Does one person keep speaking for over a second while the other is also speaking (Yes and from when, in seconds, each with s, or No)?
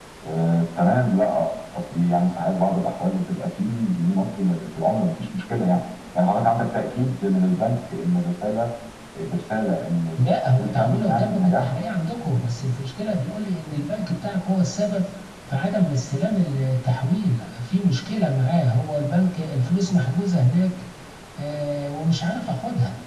Yes, from 10.2 s